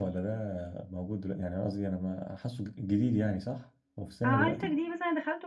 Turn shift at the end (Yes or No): Yes